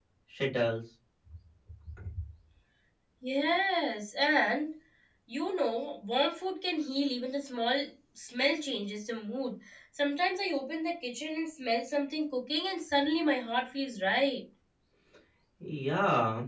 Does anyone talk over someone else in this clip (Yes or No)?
No